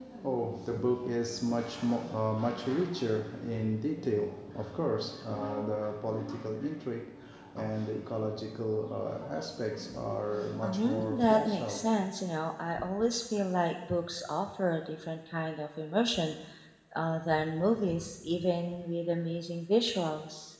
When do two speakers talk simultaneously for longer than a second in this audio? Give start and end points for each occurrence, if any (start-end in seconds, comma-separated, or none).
10.6-11.9